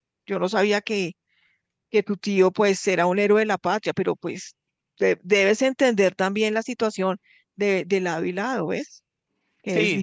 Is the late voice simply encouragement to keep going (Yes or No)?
No